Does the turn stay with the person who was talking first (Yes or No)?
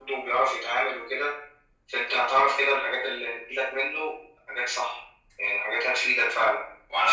No